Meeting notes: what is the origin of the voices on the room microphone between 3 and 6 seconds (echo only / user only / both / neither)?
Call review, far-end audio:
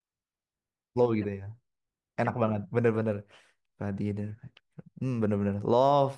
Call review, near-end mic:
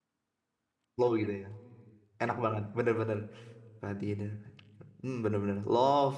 echo only